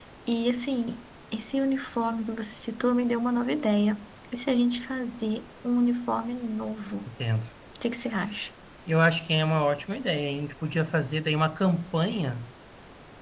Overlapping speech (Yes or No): No